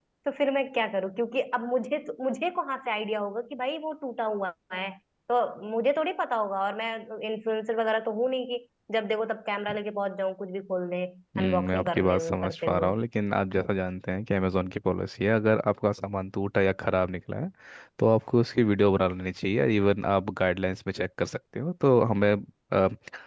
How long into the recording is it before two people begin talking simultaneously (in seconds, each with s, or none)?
11.3 s